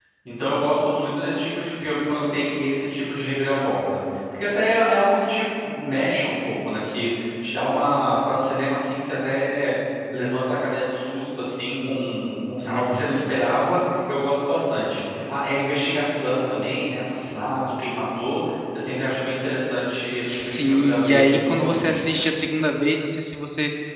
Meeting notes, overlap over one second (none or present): present